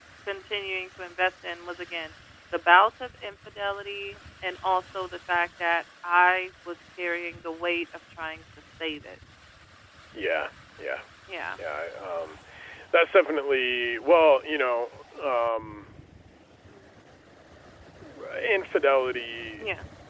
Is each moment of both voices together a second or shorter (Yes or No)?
Yes